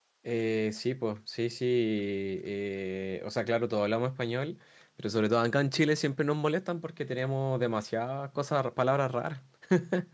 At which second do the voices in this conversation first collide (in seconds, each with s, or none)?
none